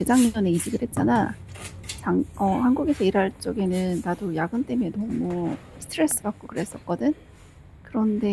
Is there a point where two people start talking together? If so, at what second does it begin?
none

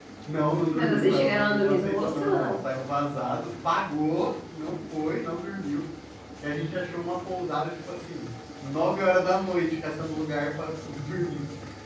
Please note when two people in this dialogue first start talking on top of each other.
0.7 s

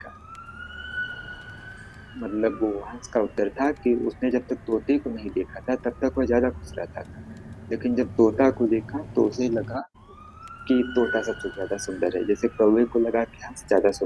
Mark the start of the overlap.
none

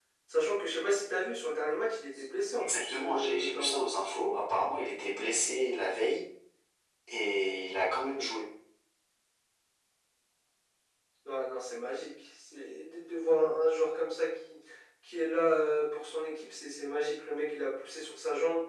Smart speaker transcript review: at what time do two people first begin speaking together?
2.6 s

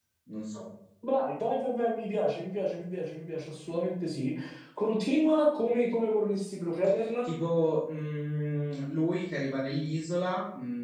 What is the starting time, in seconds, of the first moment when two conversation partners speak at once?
none

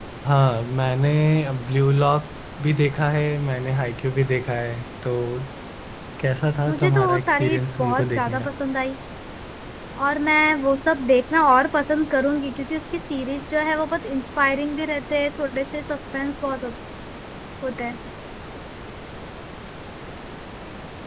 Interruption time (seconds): 6.7 s

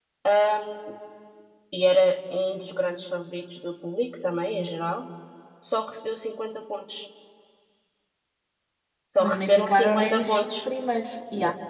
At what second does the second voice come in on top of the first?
9.2 s

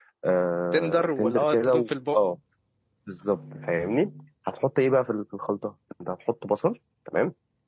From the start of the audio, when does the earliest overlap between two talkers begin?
0.7 s

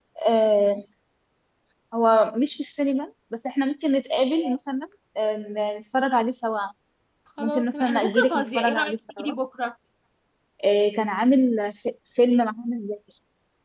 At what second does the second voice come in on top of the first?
7.4 s

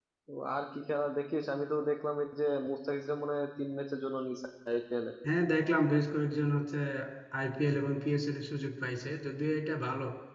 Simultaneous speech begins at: none

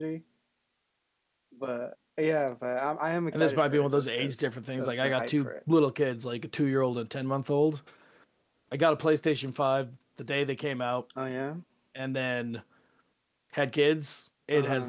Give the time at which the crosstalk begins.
3.3 s

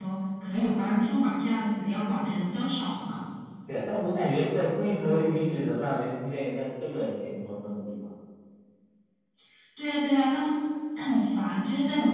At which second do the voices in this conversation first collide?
none

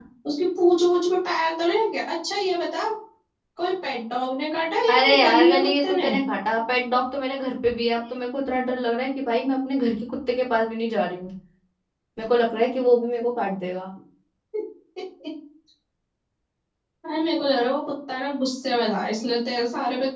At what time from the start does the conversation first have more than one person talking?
4.9 s

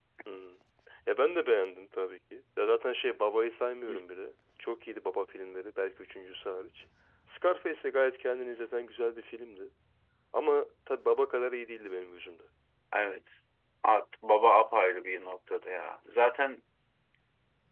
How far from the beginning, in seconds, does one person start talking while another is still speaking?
none

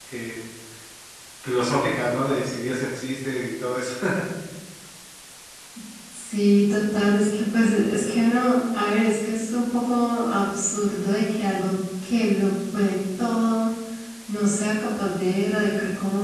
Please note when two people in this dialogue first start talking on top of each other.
none

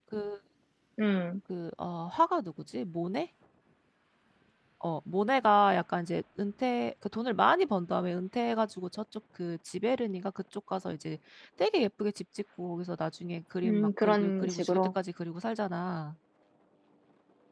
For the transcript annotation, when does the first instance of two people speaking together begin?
13.6 s

